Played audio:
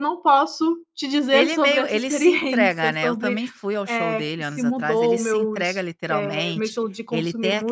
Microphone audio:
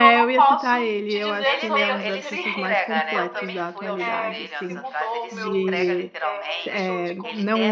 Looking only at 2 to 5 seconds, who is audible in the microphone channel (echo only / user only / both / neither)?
both